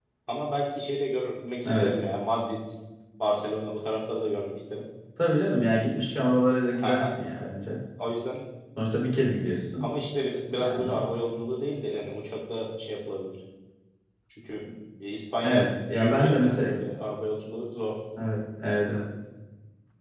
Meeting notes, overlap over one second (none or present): present